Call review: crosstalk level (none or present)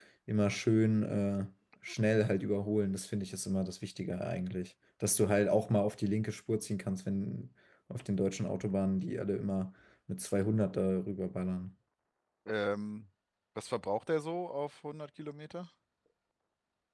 none